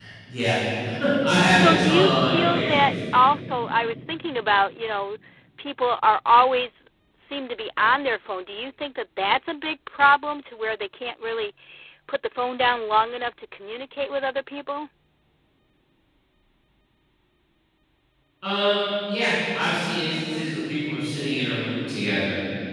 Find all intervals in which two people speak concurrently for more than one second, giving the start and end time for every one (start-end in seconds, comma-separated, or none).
1.4-2.9